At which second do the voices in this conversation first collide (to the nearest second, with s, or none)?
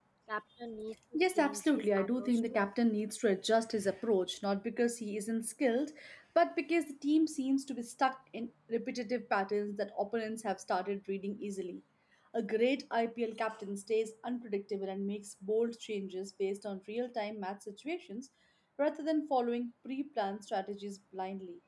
1 s